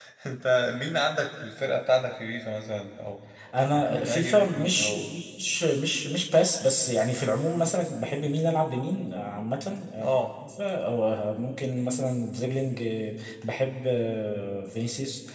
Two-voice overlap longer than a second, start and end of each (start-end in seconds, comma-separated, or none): 3.7-4.9